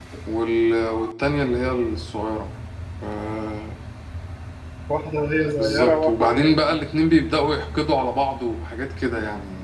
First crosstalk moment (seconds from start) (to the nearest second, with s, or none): 6 s